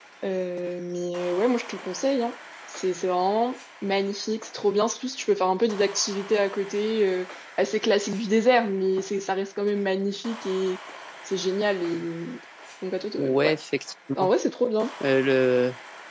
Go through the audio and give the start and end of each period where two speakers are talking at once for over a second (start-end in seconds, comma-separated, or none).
none